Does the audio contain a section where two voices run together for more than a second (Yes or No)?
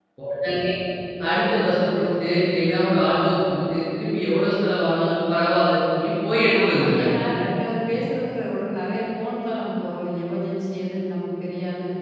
No